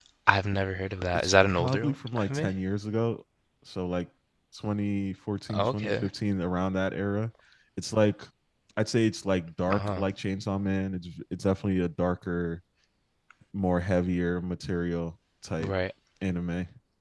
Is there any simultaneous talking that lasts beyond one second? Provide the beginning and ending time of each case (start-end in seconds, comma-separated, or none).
1.1-2.5